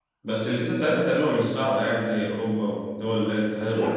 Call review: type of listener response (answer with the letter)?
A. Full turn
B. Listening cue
A